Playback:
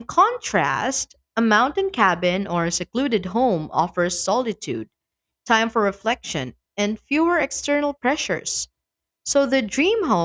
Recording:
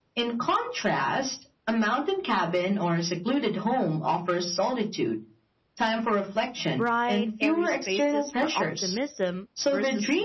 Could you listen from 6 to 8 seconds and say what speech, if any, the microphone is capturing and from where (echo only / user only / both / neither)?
both